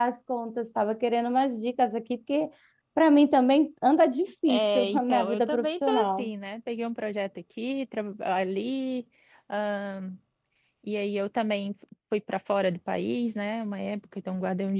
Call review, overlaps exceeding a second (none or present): present